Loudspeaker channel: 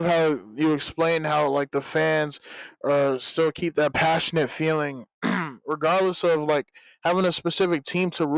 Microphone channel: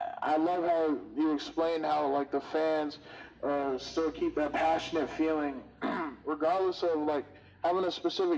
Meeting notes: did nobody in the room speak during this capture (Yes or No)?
Yes